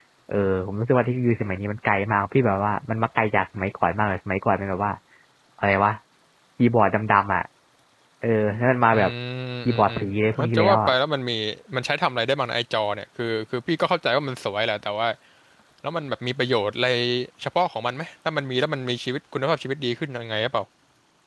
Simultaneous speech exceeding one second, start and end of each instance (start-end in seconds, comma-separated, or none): 9.7-10.9